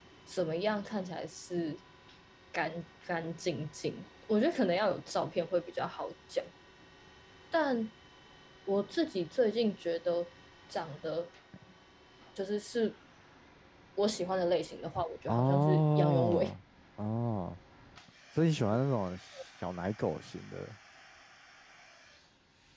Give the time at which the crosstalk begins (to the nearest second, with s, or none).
15 s